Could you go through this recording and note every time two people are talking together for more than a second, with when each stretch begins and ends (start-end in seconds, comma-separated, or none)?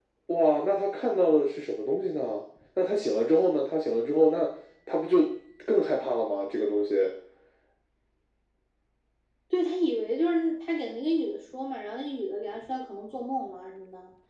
none